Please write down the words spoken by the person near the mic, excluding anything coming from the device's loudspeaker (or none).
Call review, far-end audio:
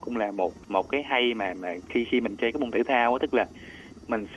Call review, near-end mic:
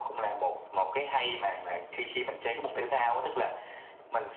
none